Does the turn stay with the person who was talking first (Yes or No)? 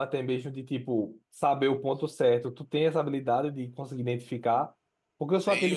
Yes